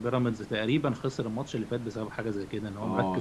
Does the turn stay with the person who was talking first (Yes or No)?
No